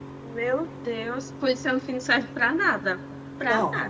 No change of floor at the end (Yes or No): No